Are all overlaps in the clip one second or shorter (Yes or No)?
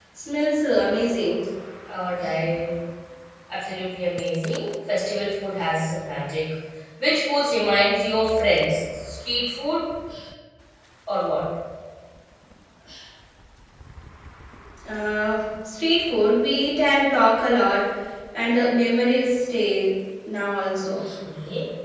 Yes